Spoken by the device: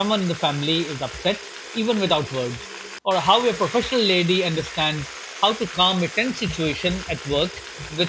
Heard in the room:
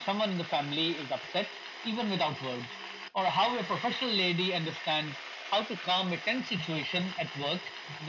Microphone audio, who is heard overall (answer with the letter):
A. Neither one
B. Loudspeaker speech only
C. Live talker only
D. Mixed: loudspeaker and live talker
B